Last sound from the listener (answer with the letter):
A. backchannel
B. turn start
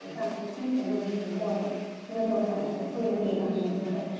B